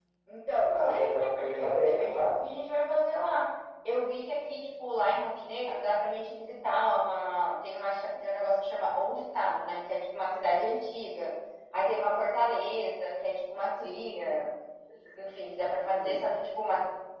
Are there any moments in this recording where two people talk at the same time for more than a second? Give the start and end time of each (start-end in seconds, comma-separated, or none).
0.7-2.3